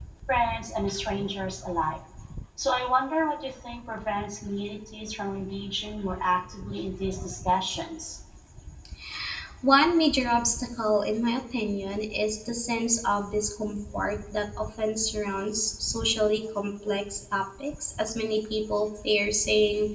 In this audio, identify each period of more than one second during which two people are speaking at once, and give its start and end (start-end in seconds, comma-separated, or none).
none